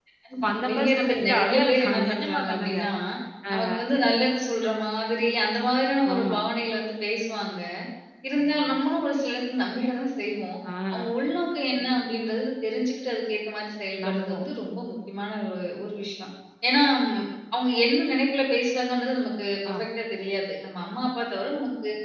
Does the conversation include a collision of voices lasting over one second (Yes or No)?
Yes